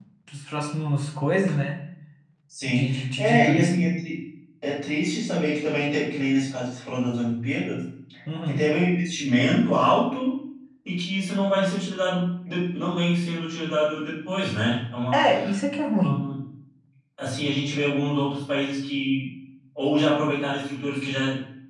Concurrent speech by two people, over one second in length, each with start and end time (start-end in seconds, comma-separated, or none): 2.7-3.9